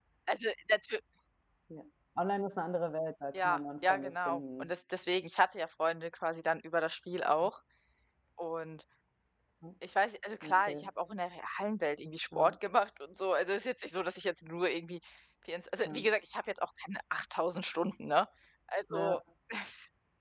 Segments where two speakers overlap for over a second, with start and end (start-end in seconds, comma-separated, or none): 3.3-4.7